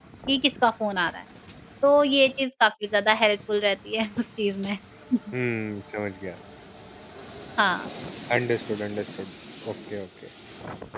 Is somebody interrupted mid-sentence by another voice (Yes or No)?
No